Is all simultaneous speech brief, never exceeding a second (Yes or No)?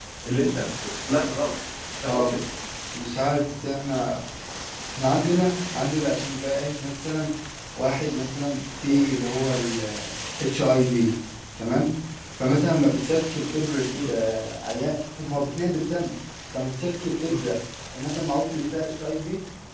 Yes